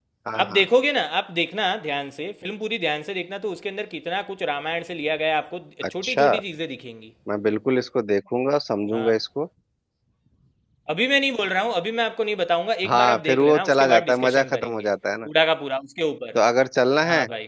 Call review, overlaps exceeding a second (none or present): present